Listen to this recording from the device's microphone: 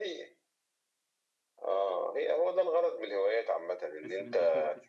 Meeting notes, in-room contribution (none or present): present